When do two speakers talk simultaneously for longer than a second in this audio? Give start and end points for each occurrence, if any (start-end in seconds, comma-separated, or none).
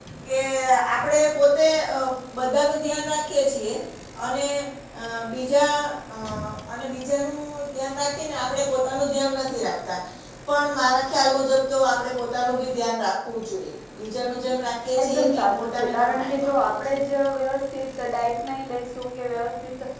15.0-17.1